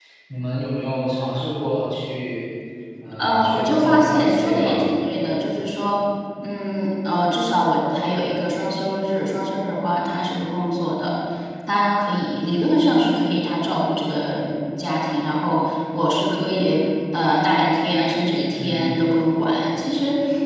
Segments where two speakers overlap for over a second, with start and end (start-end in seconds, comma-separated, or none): 3.2-4.9